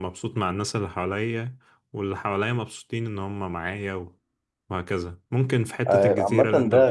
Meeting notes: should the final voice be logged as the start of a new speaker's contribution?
Yes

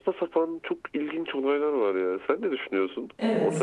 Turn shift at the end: Yes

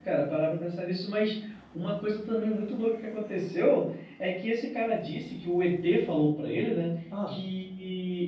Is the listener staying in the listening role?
Yes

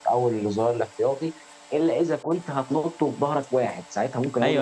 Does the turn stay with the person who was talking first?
No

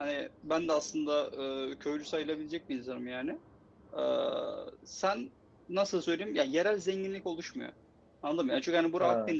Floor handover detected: No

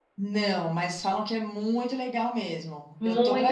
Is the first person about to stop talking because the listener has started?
Yes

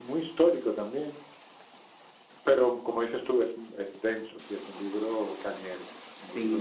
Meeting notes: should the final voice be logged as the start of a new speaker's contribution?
Yes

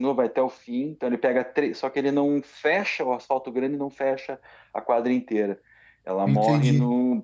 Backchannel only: Yes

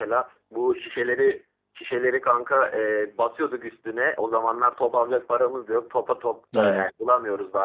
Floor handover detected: No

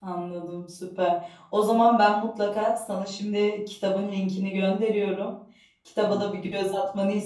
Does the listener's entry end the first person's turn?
No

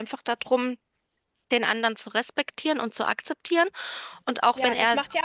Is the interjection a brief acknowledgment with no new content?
No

